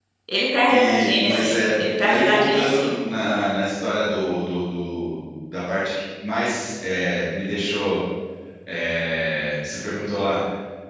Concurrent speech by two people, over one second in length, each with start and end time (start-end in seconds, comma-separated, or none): 0.7-2.9